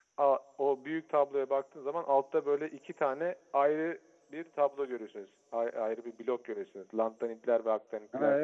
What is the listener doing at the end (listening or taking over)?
taking over